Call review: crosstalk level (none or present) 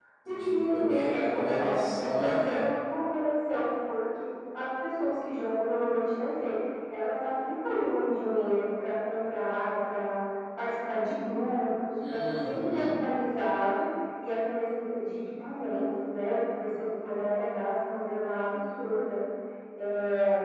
present